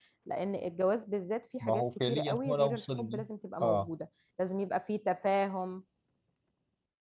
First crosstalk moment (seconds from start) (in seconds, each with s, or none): 1.6 s